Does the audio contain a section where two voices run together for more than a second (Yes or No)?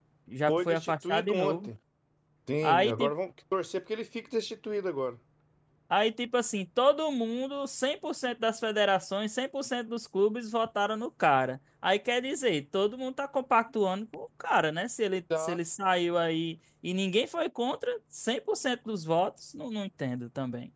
Yes